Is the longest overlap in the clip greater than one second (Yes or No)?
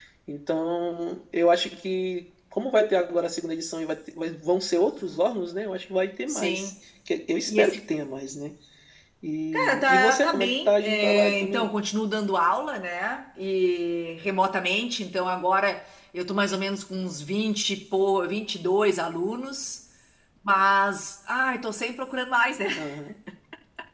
Yes